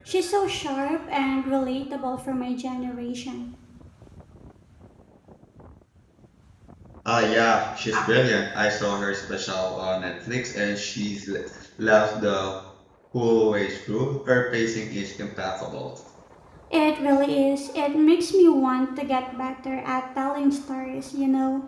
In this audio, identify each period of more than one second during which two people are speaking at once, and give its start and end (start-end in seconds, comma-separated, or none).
none